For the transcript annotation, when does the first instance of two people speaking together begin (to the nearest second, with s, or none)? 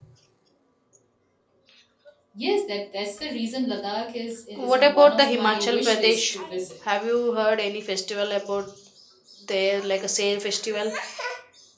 5 s